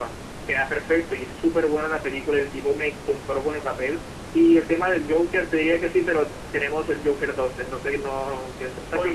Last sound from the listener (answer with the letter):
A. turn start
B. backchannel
A